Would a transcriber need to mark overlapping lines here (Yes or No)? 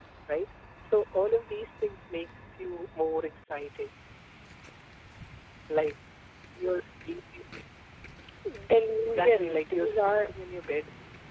Yes